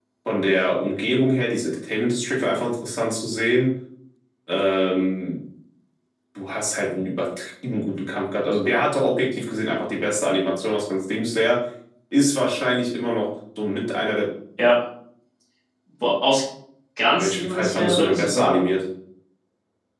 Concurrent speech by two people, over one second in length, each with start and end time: 17.2-18.6

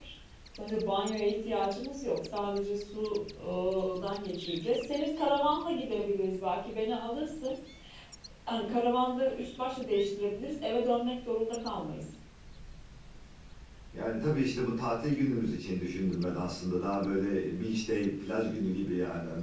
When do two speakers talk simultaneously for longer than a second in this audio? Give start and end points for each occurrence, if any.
none

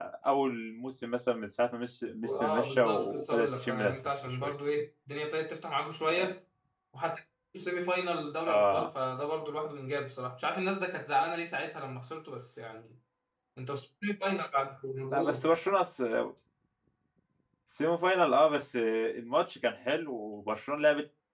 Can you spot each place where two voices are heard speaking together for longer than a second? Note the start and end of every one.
2.2-4.5

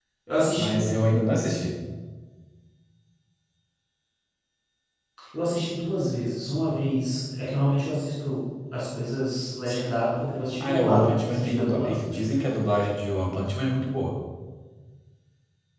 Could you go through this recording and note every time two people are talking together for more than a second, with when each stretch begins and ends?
10.6-12.0

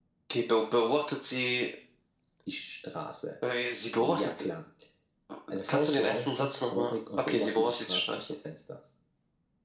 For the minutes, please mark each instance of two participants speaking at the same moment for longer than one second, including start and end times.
5.7-8.3

